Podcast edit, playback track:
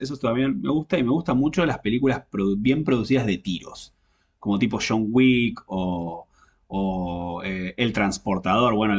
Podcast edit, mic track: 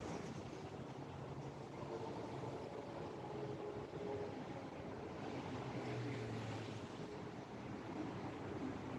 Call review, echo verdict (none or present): none